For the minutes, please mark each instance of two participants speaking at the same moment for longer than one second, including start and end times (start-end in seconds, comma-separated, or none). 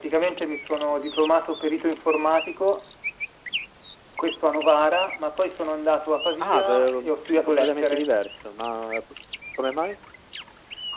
6.4-8.0